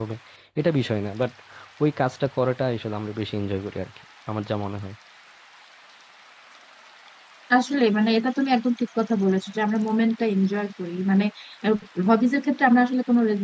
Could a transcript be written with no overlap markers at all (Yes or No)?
Yes